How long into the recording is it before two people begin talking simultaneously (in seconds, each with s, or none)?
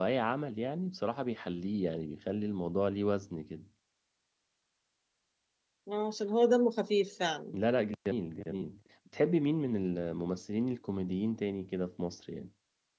none